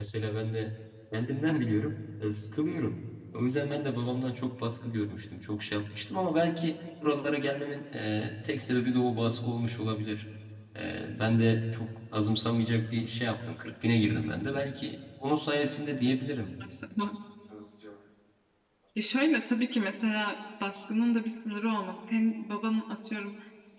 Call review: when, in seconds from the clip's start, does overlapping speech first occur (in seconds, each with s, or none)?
none